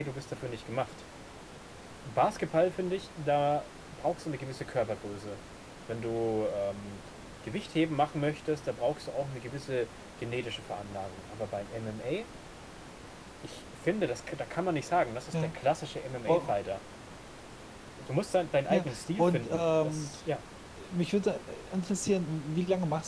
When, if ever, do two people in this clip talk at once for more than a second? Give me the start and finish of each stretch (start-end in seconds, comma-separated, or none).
18.7-20.1